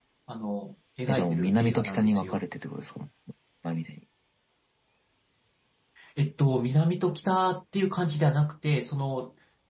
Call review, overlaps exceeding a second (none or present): present